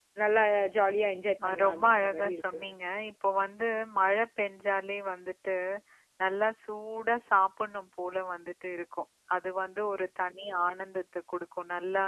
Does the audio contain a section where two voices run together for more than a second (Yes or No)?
Yes